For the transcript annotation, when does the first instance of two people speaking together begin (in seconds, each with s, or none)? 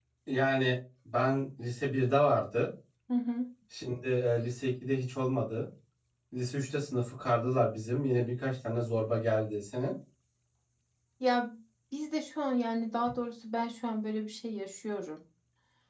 none